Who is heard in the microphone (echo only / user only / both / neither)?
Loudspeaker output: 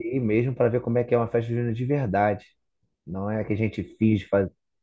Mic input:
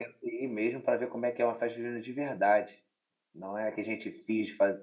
echo only